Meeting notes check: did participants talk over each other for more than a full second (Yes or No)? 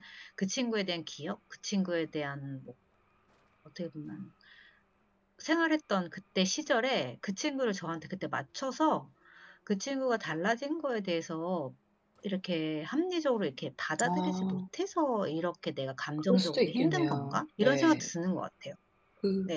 Yes